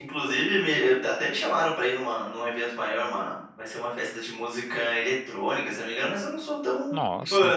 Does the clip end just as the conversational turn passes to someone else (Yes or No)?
No